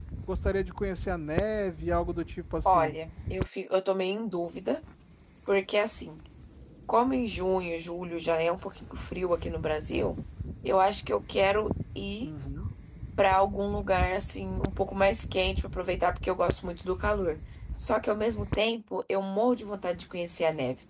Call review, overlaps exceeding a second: none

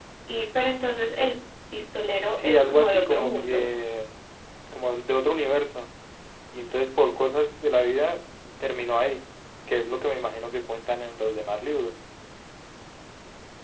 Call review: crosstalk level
present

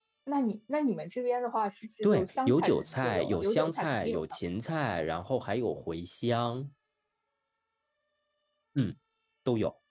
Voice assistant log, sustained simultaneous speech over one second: present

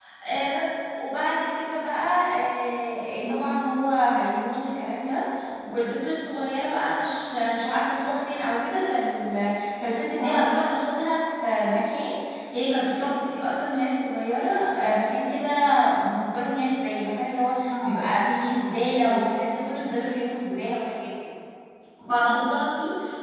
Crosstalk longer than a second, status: none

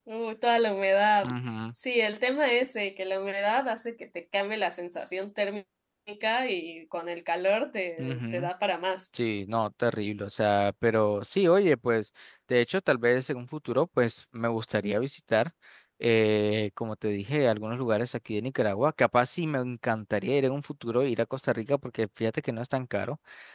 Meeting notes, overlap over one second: none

